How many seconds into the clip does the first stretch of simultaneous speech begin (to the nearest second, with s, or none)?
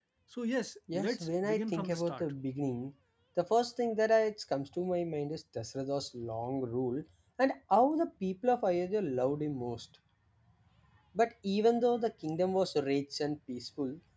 1 s